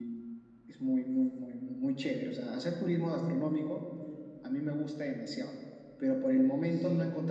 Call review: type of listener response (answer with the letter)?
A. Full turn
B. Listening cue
B